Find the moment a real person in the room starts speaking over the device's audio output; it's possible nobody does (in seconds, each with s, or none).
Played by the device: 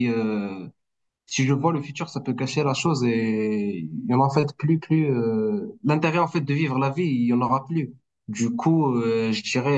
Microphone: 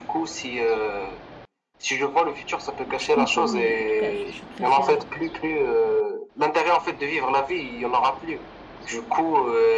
2.8 s